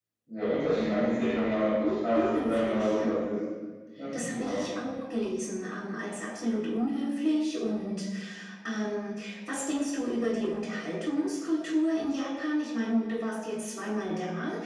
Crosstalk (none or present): present